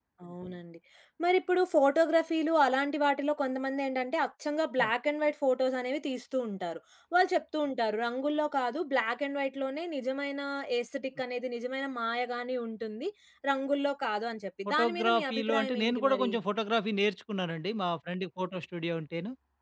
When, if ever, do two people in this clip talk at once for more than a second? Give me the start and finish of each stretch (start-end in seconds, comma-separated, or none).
14.7-16.3